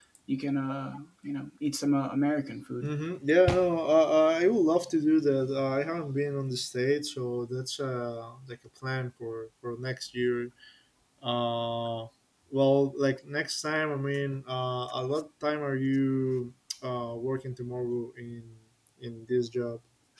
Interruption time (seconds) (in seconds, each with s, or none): none